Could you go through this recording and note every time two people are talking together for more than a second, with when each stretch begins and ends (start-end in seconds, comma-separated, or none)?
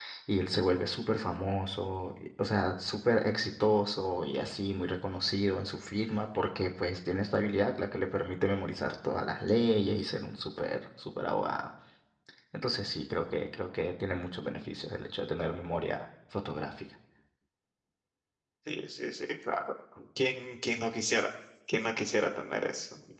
none